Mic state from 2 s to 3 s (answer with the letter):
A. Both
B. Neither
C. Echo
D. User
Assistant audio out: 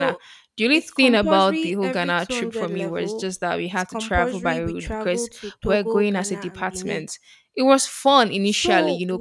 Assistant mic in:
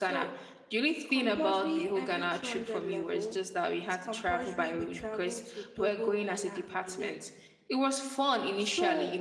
C